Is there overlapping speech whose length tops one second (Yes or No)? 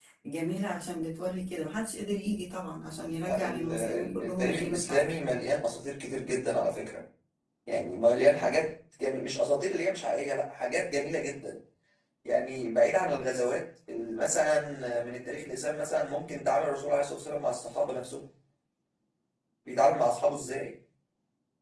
Yes